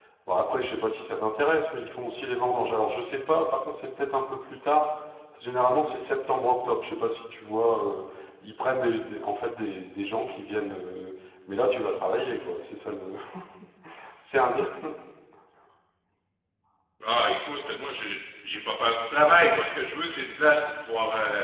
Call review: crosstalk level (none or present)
none